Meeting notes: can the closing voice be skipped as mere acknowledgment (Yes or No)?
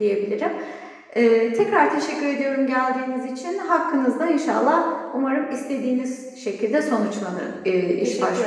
No